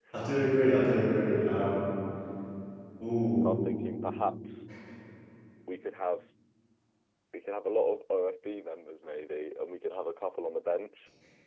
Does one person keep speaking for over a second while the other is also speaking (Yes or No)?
No